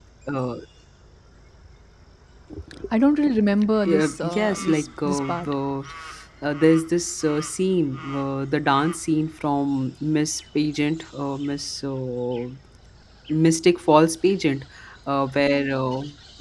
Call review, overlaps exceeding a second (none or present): present